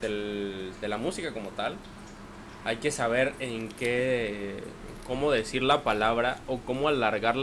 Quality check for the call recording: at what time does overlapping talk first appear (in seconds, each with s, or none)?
none